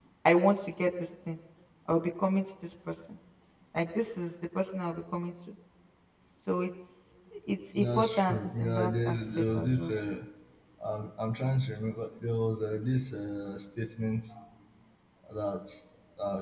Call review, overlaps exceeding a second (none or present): present